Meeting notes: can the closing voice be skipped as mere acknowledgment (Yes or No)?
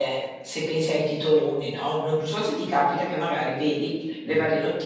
Yes